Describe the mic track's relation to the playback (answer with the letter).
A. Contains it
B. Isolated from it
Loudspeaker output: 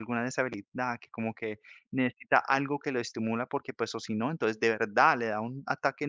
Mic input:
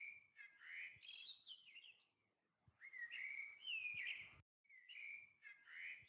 B